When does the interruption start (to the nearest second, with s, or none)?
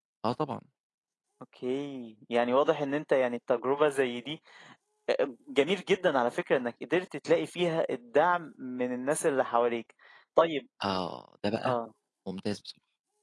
none